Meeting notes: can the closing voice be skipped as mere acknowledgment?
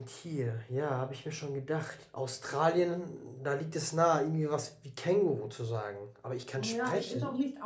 No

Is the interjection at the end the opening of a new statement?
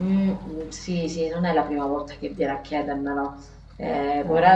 No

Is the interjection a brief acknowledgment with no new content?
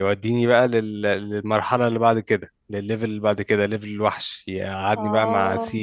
Yes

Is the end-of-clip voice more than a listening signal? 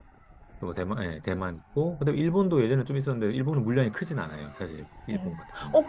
Yes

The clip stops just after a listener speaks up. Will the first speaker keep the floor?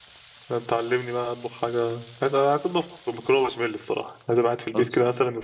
Yes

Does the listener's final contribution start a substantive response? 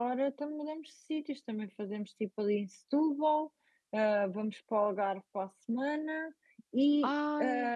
No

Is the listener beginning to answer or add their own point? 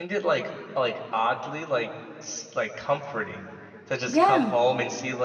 No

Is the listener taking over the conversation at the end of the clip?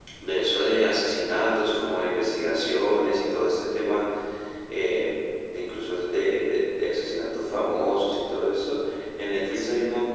No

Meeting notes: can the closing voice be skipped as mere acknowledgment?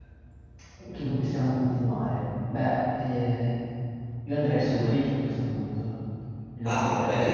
No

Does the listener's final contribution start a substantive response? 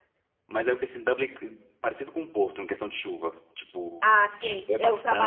Yes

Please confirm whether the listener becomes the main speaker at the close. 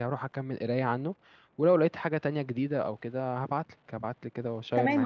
Yes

